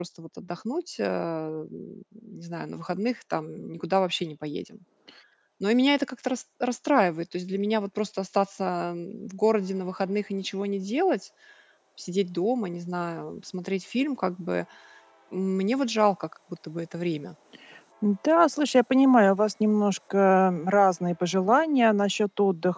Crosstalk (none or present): none